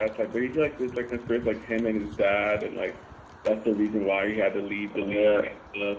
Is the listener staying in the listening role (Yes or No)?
No